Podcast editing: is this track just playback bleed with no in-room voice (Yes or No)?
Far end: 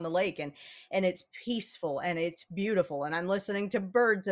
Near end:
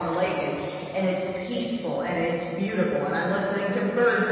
Yes